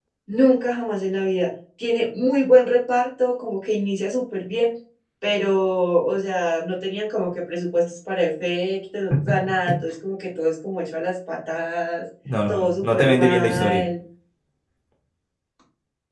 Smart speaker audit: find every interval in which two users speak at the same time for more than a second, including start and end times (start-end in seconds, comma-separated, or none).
12.5-13.8